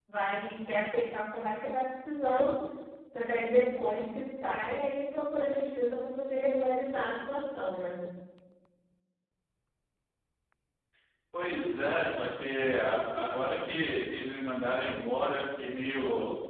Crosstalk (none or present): none